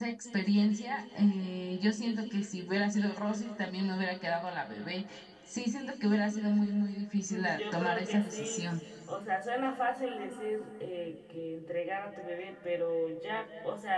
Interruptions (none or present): present